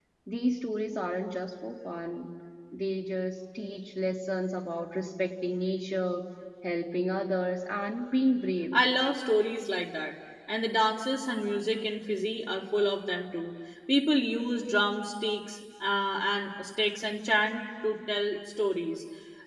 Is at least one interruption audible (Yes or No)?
No